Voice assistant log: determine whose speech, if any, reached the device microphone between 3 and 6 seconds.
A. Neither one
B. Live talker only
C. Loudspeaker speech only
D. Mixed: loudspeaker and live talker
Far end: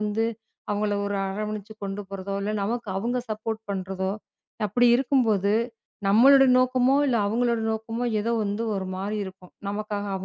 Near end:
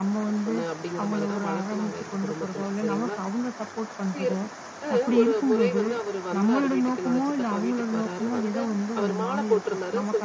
D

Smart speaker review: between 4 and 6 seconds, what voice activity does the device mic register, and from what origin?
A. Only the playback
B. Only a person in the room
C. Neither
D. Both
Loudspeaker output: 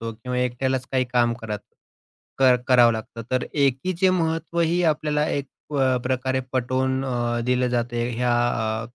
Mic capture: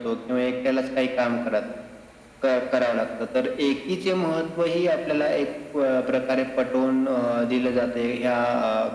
A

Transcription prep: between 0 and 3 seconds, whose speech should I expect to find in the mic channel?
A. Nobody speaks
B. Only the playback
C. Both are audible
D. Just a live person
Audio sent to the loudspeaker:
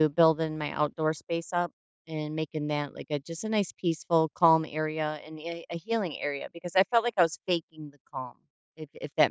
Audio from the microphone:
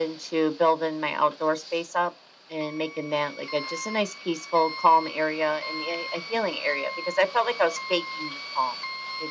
B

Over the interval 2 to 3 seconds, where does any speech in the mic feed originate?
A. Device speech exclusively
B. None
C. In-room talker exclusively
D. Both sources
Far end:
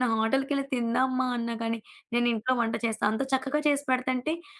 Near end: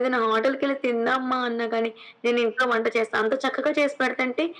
A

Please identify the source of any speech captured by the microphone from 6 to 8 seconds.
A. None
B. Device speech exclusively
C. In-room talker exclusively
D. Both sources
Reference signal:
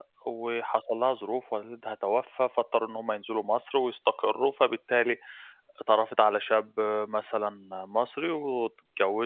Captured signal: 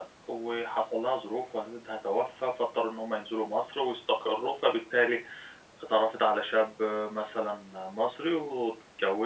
B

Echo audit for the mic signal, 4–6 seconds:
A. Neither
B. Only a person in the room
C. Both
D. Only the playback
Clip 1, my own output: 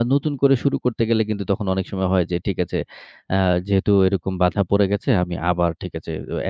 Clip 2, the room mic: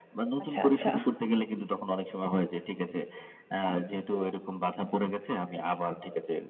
D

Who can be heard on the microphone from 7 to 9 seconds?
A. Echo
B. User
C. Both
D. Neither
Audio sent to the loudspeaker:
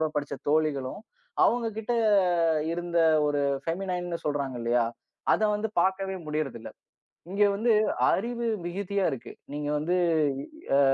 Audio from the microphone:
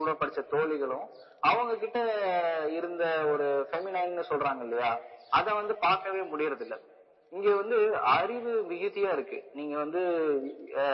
A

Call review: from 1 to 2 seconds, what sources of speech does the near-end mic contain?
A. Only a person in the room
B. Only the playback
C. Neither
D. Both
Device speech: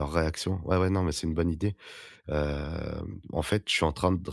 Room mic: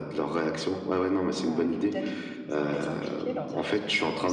D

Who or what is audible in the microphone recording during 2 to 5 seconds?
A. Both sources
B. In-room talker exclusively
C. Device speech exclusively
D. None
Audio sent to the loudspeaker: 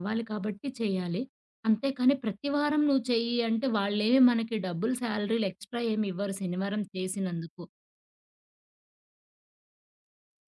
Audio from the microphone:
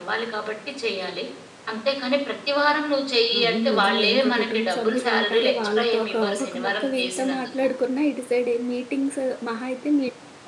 A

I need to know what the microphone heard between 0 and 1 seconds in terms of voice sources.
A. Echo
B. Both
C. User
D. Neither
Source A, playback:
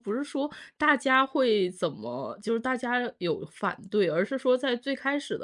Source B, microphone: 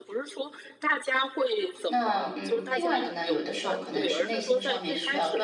A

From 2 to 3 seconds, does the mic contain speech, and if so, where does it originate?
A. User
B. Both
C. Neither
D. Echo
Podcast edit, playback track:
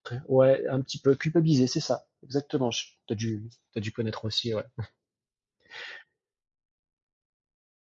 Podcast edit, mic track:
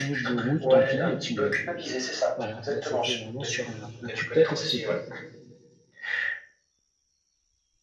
B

